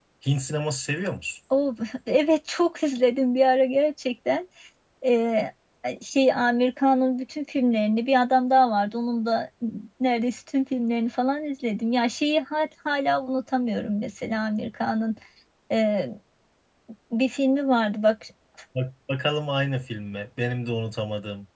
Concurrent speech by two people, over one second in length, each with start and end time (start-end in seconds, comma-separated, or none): none